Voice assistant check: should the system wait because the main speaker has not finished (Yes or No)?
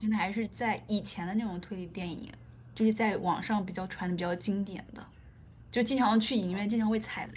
Yes